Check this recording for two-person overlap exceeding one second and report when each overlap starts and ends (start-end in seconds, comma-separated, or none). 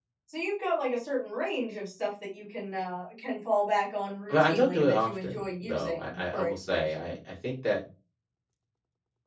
4.3-7.1